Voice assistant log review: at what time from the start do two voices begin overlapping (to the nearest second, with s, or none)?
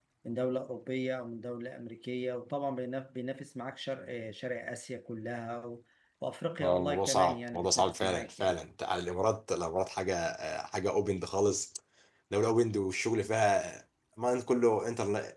7 s